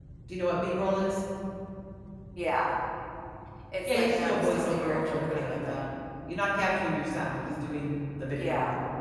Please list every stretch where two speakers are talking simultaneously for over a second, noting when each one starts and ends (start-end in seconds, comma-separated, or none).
3.9-5.9